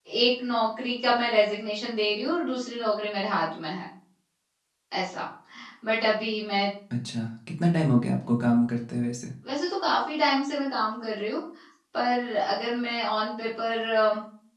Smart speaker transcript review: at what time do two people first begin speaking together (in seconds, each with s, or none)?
none